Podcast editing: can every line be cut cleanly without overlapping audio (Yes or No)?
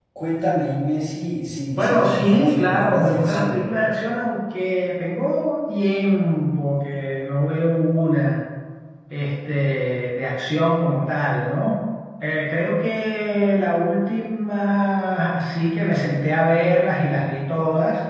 No